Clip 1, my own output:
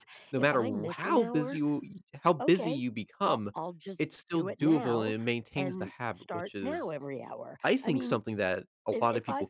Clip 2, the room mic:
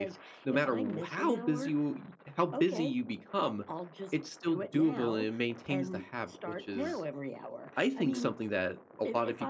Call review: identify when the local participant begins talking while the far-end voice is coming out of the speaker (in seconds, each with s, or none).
none